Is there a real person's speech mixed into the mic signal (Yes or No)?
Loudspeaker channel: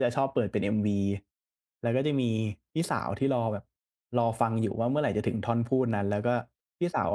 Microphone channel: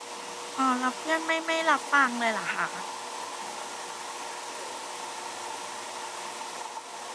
Yes